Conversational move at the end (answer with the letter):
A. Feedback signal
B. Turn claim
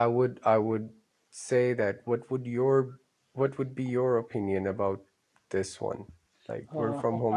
B